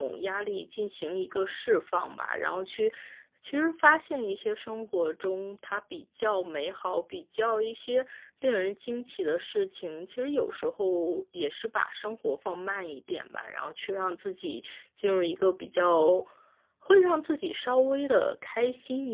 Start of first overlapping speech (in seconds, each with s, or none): none